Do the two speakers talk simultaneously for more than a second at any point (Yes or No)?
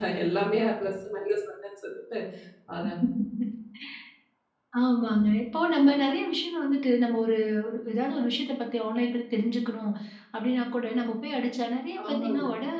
No